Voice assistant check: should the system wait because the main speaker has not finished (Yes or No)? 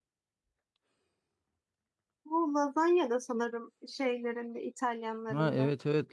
No